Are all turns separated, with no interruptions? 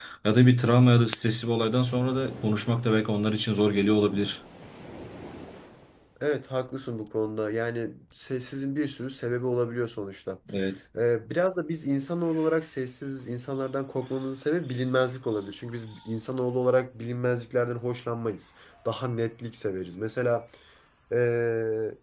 Yes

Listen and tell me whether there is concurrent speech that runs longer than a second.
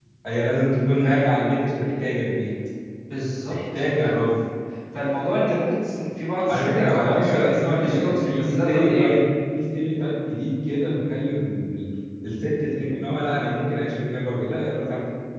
Yes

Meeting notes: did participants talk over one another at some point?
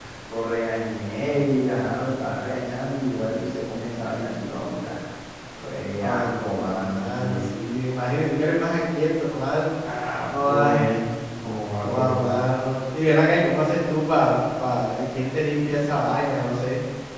Yes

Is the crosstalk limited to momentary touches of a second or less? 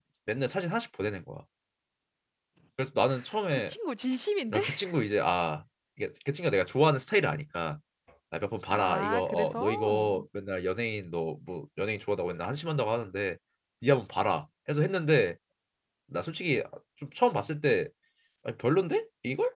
No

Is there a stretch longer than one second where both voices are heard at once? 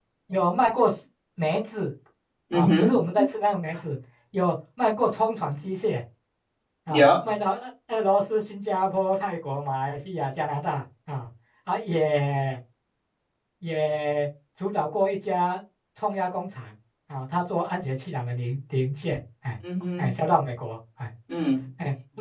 No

